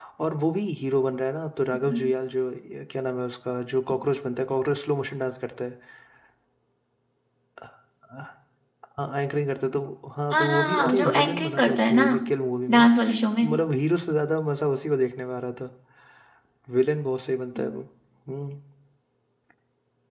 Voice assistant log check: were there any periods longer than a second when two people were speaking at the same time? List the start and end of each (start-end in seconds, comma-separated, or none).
10.3-12.0